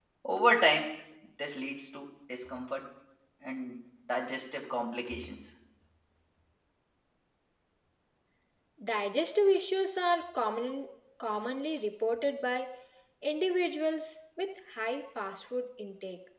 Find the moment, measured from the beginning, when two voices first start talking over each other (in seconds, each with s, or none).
none